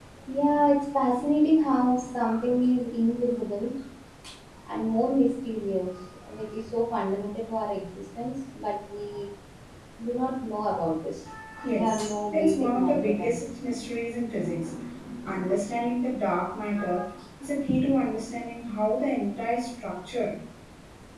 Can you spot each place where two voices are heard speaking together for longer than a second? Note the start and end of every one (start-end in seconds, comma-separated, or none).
11.7-13.4